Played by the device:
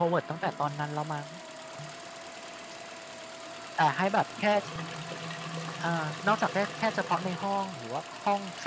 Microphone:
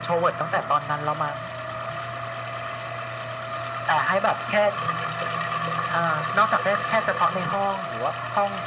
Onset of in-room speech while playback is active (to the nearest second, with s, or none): none